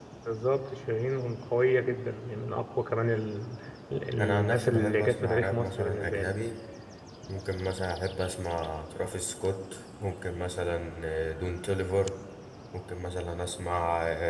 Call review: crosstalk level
present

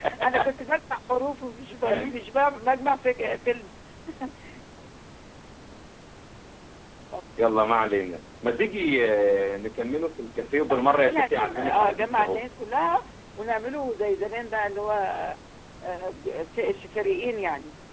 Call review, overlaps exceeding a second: present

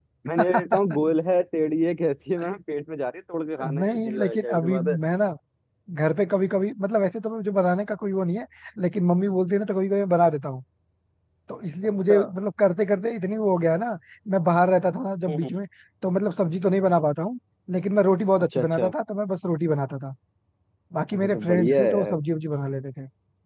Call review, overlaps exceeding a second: present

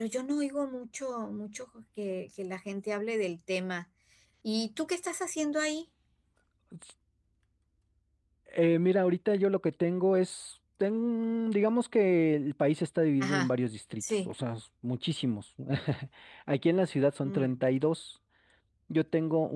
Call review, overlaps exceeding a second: none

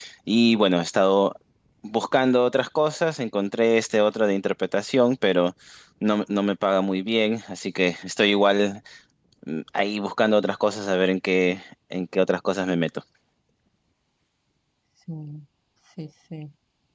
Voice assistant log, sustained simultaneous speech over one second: none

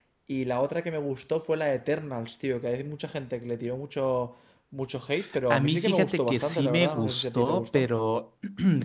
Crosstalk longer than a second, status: present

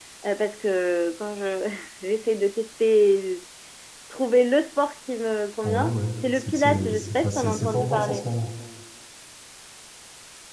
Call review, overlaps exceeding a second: present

